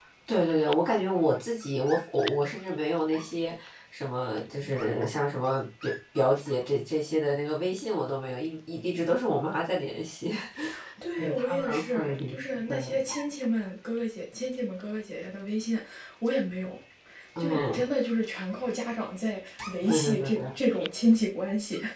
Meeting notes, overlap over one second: present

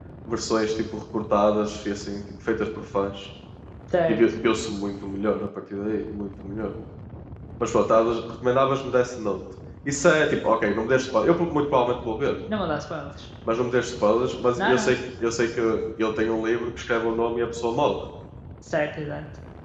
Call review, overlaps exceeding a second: none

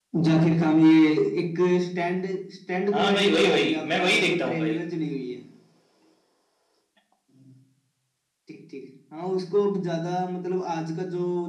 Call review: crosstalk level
present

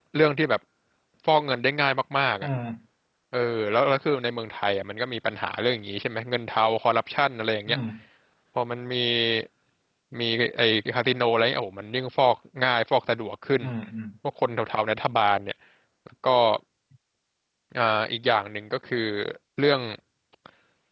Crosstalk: none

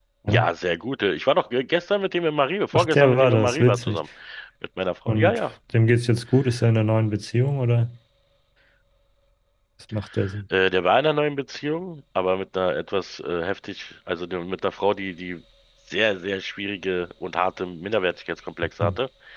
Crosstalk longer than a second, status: present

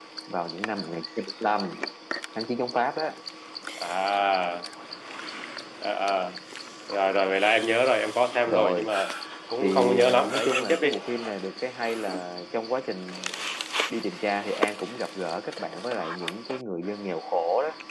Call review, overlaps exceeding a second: present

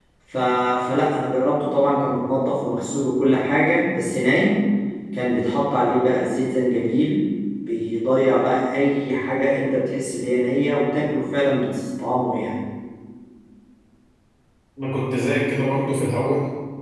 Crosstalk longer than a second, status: none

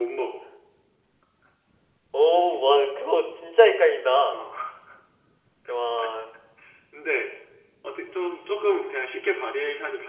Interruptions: none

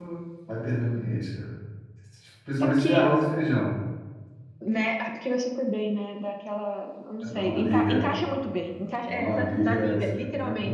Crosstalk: present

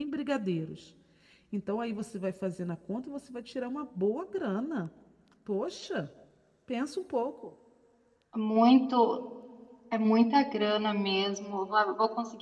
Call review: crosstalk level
none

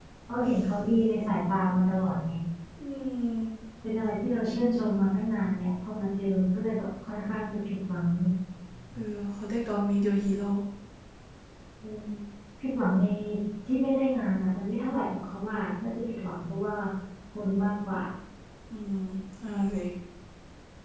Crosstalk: none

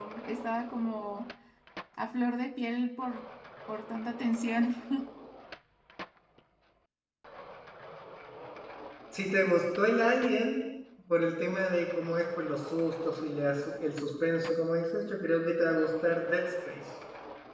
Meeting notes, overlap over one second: none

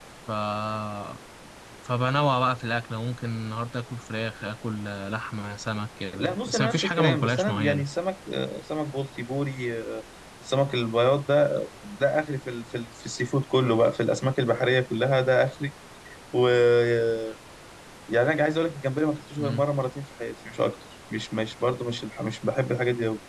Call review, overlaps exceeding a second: present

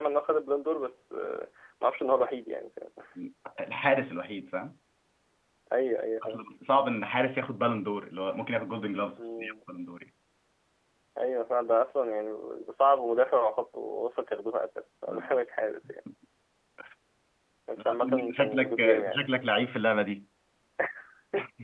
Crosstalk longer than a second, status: present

